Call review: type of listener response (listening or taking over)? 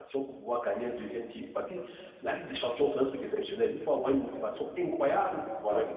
listening